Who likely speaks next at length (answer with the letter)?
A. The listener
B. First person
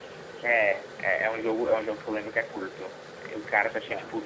B